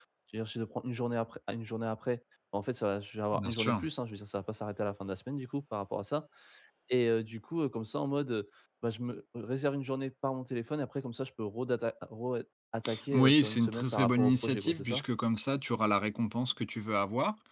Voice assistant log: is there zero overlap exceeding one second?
No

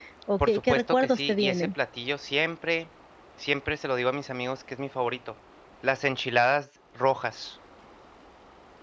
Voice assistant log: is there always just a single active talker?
No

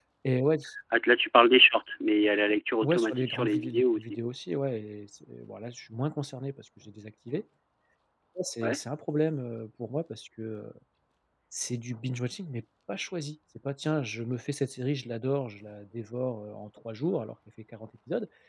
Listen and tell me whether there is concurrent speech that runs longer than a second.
Yes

